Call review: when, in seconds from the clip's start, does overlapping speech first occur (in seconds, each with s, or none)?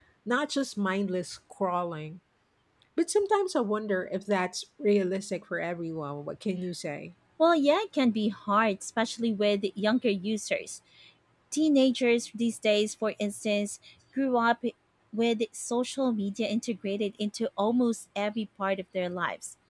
none